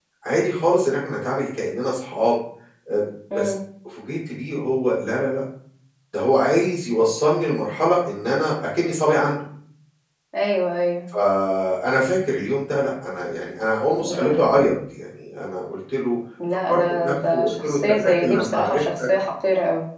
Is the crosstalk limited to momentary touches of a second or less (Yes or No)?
No